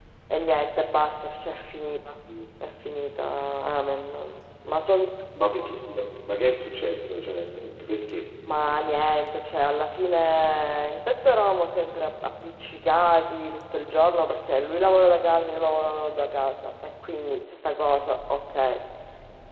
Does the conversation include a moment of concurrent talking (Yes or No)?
No